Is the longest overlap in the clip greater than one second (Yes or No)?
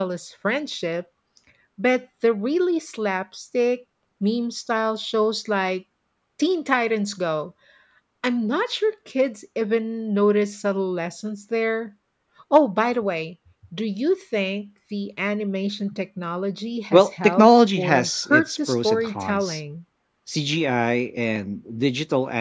Yes